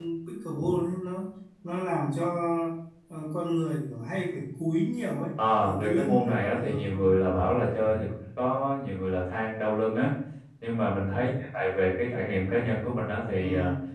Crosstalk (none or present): present